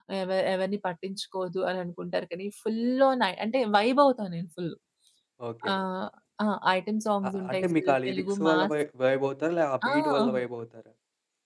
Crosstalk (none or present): present